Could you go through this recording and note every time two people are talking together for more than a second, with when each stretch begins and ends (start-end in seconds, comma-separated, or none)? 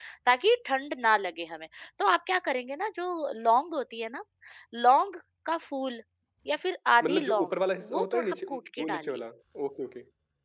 7.9-9.2